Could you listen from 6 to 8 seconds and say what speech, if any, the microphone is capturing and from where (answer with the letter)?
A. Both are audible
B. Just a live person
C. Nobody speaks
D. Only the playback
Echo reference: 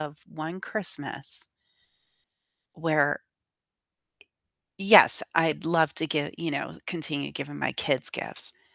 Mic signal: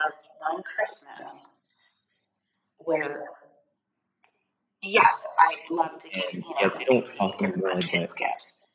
A